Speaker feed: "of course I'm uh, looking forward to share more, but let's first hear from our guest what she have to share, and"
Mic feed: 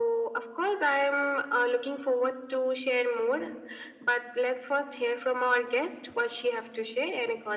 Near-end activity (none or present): none